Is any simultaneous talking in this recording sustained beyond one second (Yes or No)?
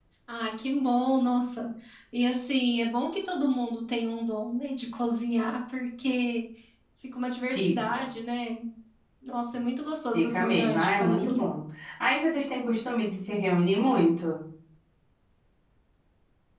Yes